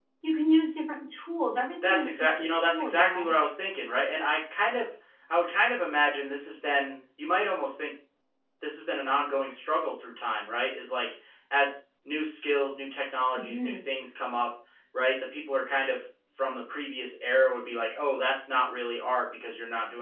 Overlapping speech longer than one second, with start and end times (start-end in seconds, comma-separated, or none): 1.8-3.3